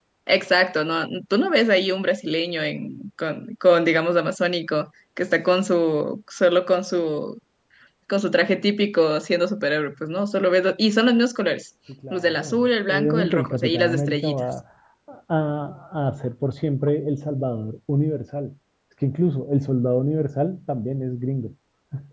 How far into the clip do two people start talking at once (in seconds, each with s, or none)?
12.1 s